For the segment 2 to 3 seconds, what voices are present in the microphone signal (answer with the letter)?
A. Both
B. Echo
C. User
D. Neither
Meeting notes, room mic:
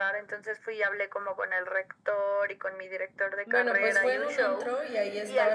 B